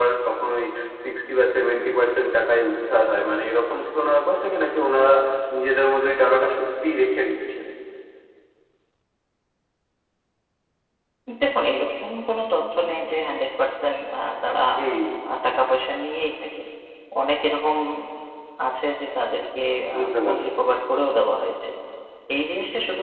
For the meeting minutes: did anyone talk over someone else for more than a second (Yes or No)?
No